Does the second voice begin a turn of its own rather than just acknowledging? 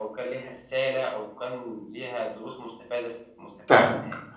Yes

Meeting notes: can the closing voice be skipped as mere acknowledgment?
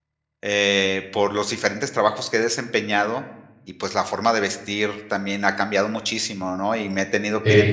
Yes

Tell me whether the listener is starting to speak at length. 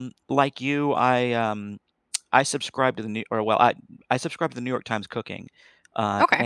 No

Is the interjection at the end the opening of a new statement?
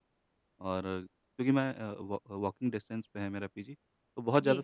No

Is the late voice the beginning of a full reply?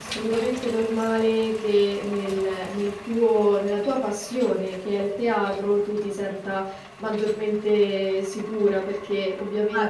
No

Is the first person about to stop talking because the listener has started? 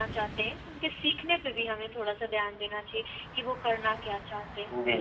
Yes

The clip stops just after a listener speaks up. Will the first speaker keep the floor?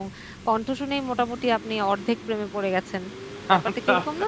No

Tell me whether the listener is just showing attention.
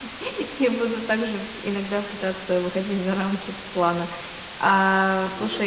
Yes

